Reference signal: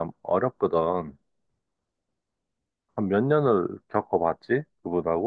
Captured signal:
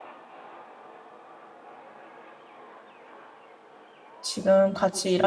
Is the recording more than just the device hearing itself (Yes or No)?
Yes